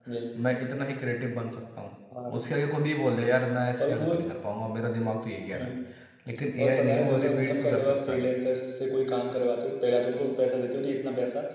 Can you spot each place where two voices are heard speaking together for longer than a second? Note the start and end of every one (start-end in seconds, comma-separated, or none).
6.6-8.2